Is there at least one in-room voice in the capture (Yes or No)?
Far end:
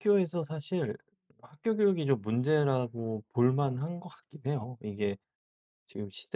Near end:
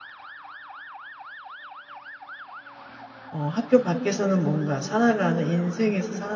Yes